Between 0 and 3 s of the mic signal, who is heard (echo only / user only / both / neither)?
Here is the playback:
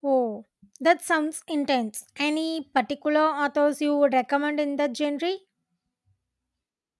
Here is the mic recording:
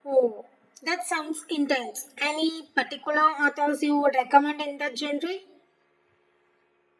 echo only